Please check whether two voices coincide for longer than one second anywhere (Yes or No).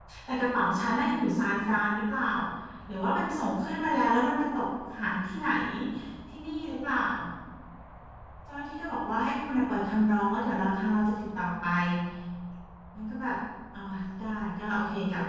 No